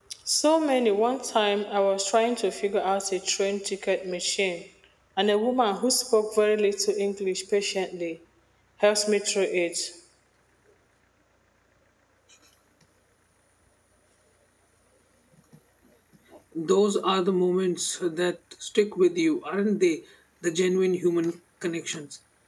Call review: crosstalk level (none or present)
none